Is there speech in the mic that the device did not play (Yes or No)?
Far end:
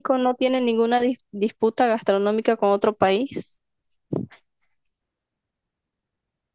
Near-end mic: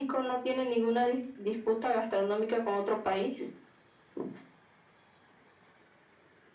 No